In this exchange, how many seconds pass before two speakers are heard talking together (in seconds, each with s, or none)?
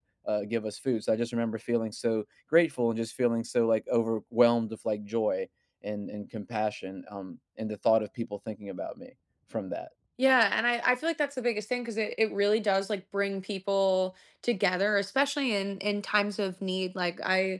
none